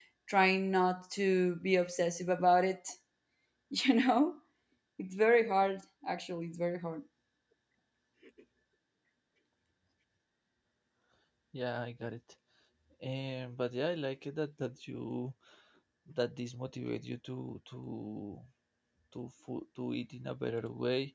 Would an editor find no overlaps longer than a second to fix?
Yes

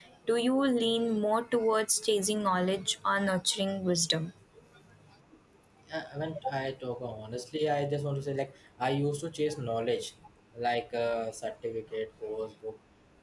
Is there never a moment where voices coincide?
Yes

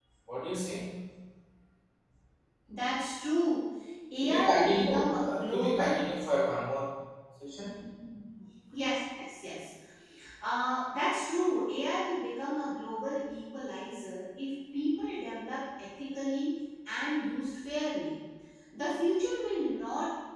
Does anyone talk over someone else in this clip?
Yes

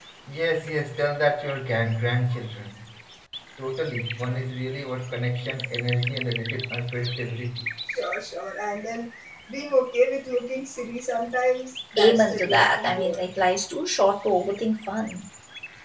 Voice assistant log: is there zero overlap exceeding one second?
No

